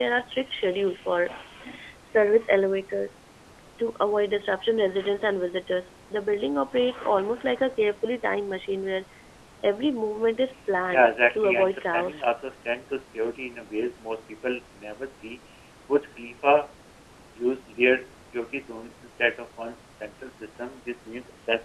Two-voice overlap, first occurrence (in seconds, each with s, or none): 10.9 s